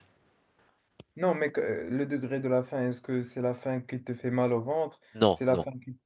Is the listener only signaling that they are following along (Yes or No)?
Yes